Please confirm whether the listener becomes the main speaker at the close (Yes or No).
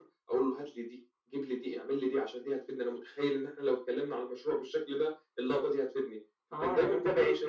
Yes